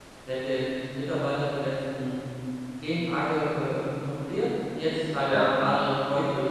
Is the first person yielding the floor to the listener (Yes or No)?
No